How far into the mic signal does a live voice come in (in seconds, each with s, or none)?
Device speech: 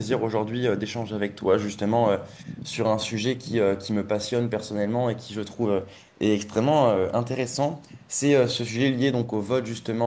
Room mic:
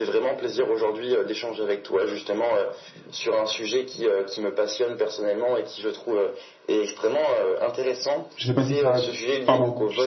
8.3 s